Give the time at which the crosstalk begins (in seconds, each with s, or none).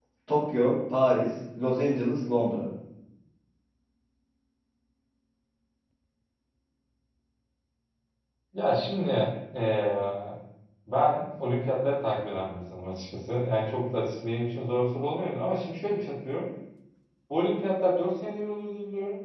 none